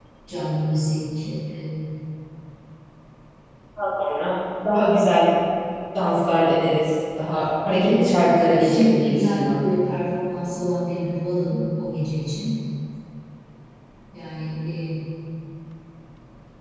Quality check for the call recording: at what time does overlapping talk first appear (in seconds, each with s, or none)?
7.7 s